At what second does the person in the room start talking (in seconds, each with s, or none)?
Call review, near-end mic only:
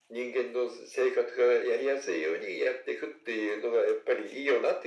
none